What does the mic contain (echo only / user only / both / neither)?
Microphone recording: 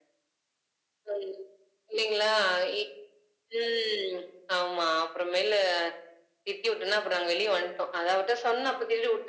echo only